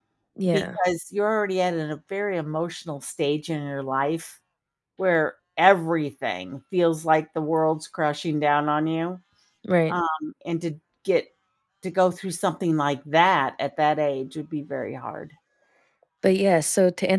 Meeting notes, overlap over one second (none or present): none